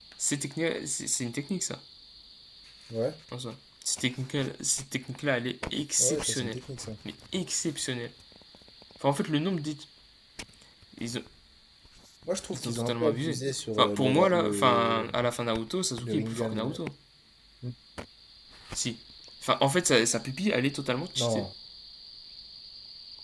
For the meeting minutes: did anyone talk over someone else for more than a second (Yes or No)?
Yes